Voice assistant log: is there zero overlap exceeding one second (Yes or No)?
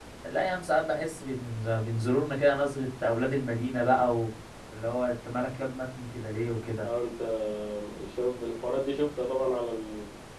Yes